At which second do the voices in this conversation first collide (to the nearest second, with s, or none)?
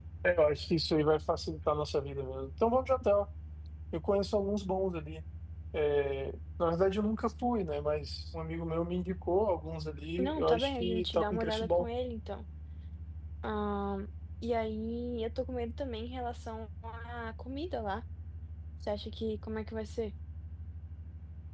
10 s